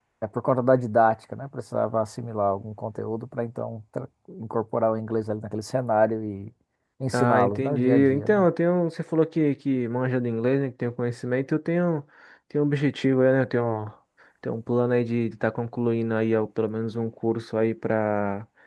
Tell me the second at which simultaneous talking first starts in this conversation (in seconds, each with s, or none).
7.1 s